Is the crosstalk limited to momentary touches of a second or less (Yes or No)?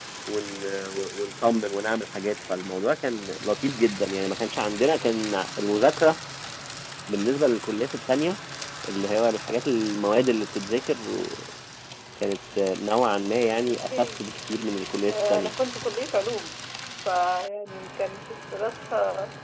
Yes